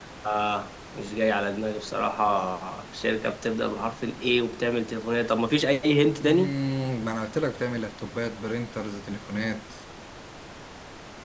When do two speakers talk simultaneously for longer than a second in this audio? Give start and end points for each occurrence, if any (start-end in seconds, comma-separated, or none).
none